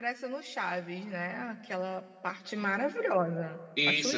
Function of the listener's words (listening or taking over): taking over